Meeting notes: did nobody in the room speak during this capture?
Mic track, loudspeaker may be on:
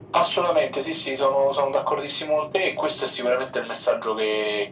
Yes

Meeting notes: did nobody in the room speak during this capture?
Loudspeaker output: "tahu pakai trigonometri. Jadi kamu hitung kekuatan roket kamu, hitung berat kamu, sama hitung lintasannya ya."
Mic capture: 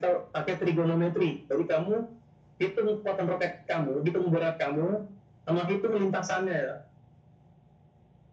Yes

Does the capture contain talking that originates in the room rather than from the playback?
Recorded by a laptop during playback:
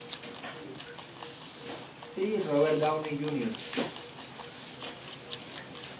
Yes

